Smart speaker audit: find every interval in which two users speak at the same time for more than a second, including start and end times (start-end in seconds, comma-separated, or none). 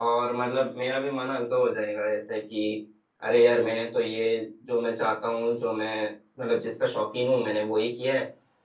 none